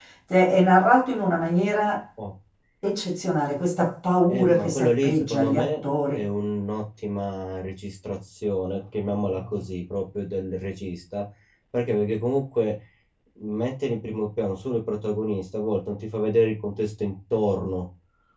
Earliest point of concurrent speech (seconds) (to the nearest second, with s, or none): 4 s